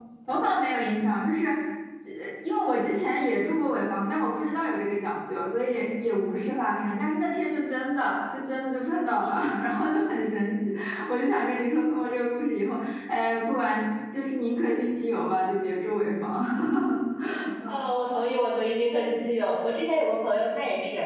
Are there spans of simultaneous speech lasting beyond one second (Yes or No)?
No